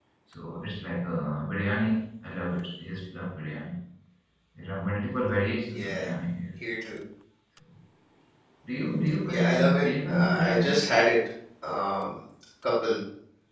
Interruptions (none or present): present